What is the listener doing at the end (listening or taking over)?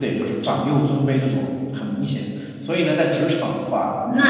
taking over